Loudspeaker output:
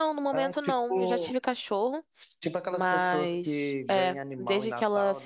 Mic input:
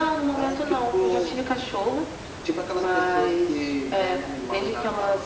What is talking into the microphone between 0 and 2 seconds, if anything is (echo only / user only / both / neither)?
echo only